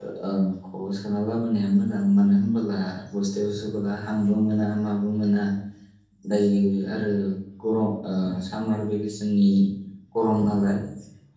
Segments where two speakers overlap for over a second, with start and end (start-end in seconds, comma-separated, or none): none